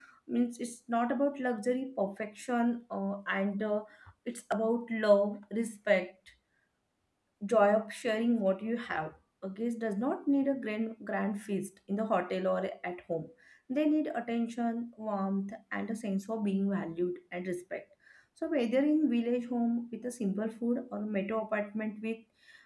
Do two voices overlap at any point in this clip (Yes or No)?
No